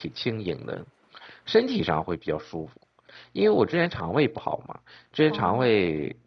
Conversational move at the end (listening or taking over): listening